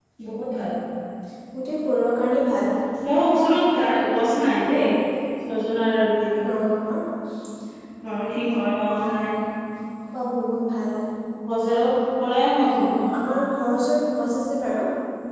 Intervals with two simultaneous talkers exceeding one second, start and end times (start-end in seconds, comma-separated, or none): none